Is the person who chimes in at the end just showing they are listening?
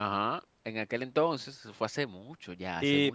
No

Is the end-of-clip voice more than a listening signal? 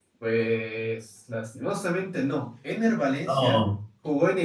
No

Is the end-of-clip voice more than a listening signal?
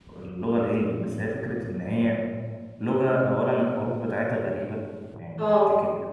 No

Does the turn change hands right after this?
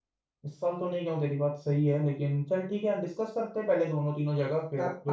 Yes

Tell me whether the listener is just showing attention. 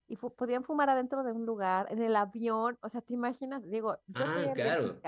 Yes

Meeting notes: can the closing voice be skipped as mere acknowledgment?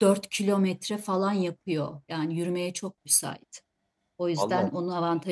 Yes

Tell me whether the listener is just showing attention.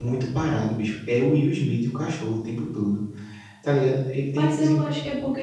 No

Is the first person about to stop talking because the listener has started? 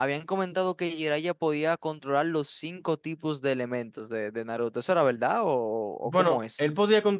Yes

